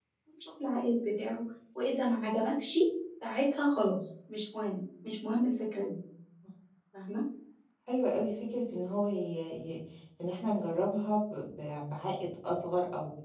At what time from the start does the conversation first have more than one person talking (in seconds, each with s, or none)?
none